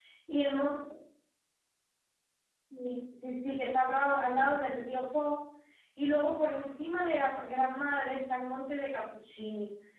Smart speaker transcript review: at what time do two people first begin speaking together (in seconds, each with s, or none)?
none